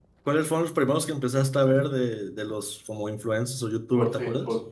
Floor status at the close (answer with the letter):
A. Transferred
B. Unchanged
A